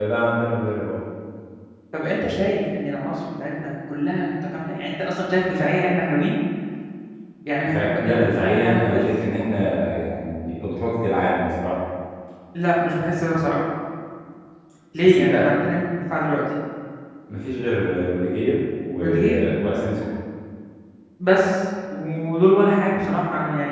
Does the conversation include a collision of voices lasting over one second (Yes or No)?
Yes